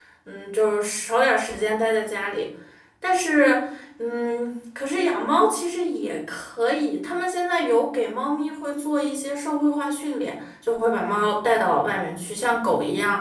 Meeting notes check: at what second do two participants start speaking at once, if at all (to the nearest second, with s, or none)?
none